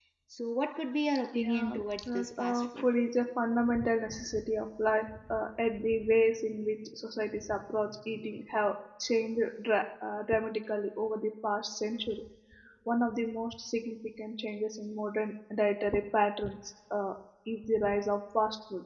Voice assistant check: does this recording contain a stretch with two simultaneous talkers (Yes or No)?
Yes